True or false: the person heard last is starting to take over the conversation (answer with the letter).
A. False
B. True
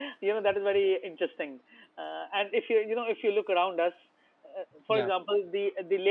A